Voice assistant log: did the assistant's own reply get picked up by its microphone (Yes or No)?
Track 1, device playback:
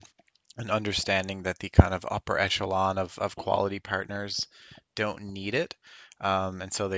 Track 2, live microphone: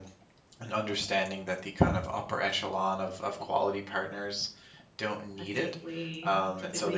Yes